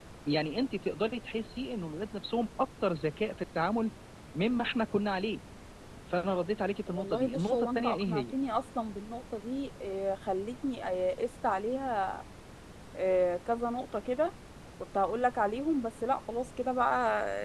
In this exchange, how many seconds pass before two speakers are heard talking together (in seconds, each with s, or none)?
6.9 s